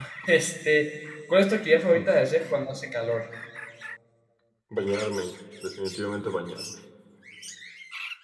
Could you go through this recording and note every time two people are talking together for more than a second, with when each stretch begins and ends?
none

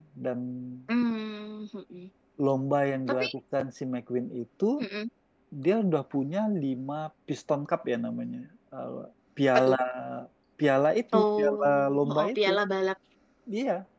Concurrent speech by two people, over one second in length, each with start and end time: 11.1-12.5

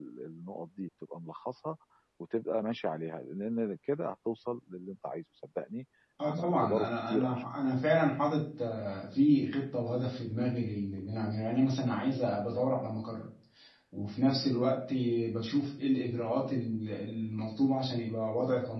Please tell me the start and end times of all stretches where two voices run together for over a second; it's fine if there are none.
6.2-7.5

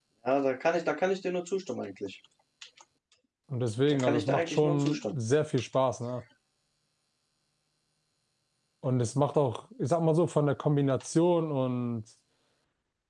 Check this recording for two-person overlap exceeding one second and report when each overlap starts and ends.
3.9-5.2

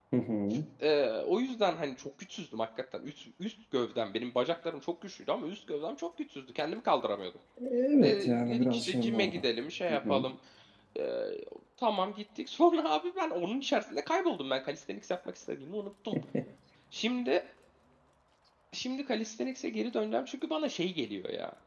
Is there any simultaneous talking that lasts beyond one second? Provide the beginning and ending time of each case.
8.0-9.5

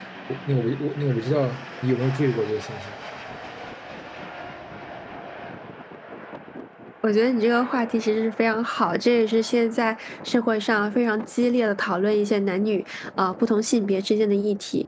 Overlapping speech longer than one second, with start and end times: none

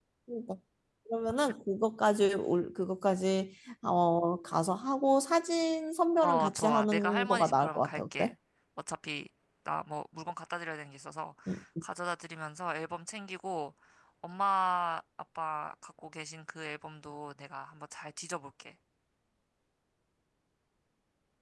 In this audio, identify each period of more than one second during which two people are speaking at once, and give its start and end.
6.2-8.3

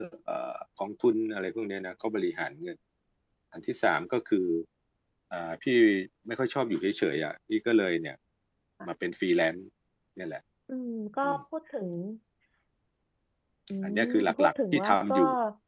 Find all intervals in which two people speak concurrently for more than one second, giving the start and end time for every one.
13.8-15.2

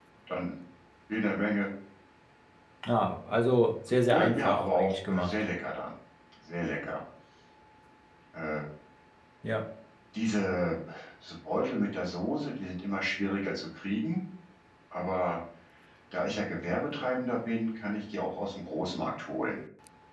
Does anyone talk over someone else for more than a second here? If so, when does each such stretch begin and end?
4.1-5.3

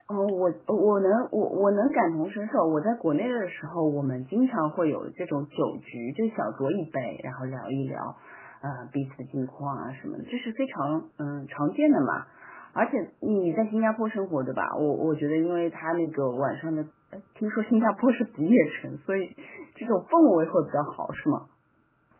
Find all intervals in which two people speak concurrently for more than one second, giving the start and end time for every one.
none

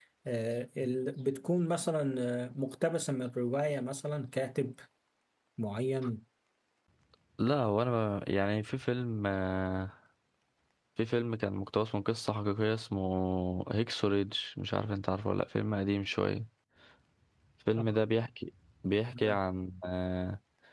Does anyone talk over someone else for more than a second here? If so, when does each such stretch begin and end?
none

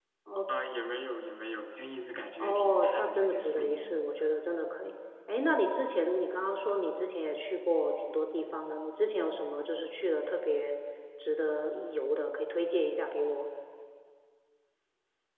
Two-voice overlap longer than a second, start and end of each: 2.4-4.0

